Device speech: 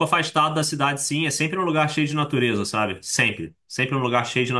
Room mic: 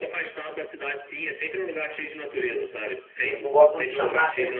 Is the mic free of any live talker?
No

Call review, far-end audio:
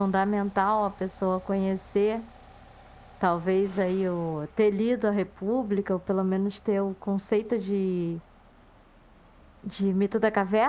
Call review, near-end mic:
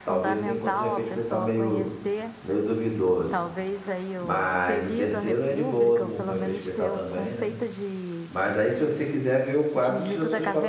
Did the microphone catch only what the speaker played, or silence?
No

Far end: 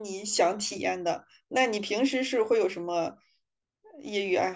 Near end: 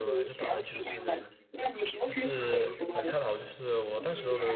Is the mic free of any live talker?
No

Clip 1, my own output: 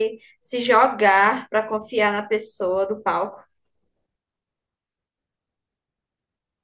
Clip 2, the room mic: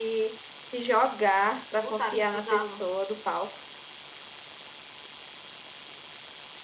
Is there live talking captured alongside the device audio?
Yes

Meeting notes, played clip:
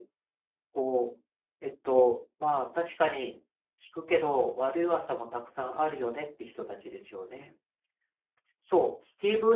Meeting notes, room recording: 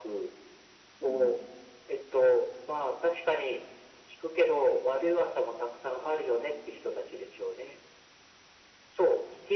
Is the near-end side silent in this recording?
No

